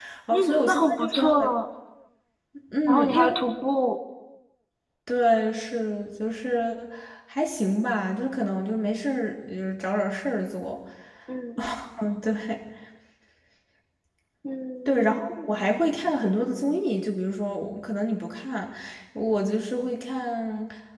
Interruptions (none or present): present